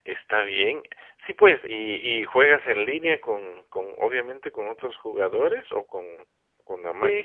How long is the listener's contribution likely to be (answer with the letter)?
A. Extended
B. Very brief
A